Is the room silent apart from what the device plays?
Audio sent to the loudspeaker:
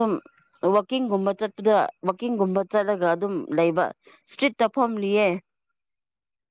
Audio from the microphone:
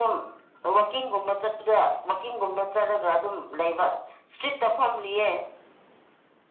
Yes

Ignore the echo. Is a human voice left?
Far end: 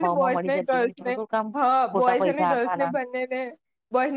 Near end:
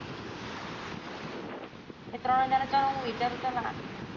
Yes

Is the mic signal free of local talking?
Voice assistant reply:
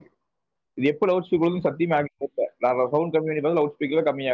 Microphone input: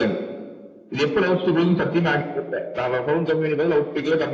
Yes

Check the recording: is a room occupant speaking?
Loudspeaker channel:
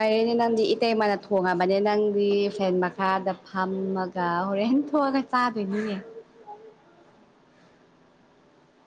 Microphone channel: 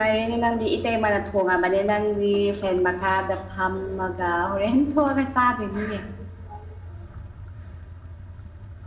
No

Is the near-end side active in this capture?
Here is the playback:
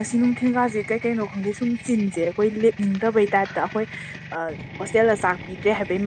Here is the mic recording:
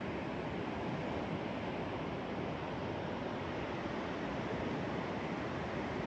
No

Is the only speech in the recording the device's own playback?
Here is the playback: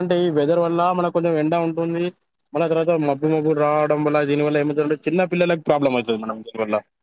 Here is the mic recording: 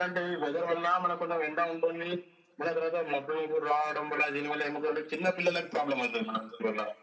Yes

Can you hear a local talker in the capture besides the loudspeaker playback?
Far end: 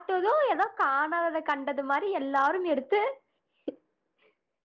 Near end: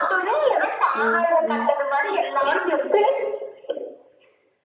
Yes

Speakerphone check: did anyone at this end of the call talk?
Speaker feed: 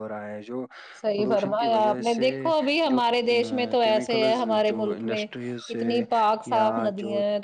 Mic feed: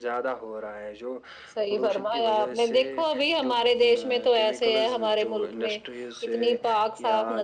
No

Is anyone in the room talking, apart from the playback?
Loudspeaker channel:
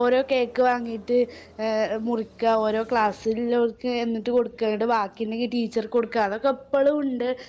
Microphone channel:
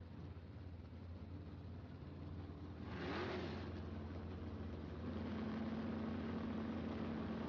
No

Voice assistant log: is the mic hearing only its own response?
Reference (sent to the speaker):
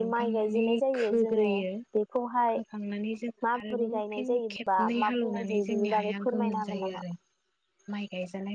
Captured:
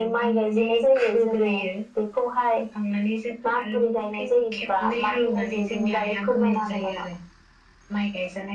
Yes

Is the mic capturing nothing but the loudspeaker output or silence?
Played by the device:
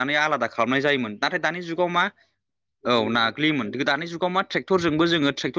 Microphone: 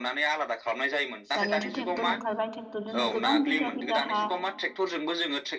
No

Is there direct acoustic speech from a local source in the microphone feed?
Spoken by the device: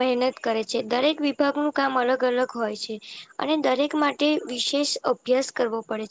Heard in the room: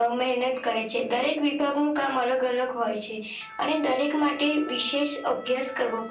No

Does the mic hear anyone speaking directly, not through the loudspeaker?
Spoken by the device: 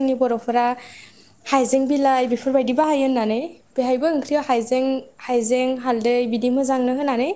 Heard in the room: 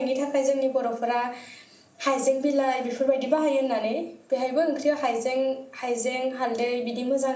No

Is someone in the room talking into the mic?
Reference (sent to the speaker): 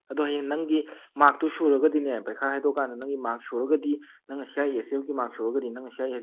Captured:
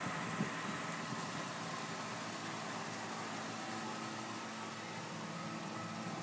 No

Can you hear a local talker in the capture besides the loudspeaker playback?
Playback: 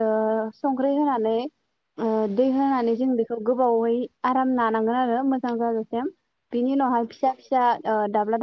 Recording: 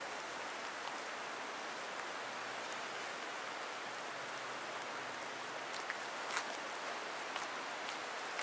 No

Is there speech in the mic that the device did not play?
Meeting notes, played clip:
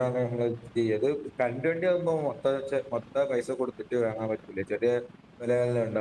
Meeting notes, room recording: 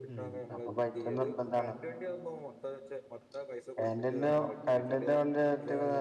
Yes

